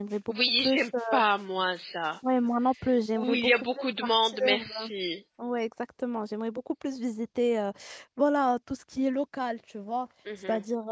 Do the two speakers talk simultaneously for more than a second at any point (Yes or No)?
Yes